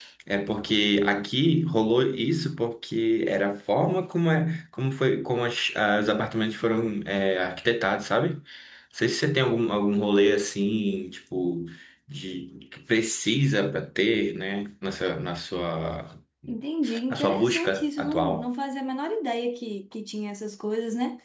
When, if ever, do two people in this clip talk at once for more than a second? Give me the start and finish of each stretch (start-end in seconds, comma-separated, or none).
17.1-18.4